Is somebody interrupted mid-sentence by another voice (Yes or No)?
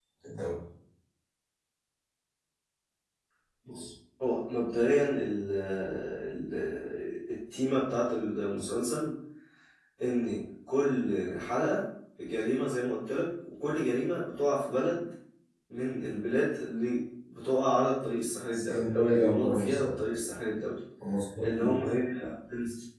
Yes